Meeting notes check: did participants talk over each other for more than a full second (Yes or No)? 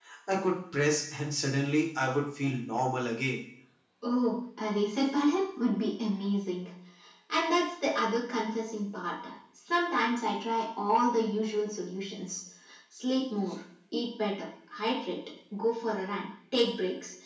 No